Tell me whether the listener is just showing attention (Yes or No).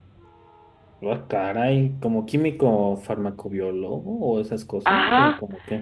No